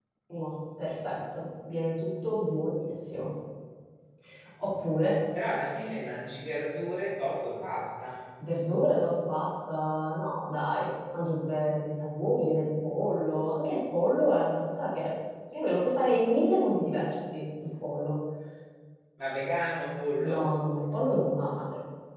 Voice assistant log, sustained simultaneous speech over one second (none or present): none